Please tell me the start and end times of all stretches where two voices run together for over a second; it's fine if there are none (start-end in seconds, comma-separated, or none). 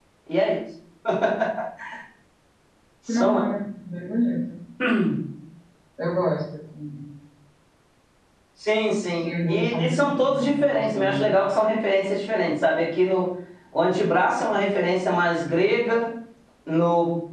9.2-11.3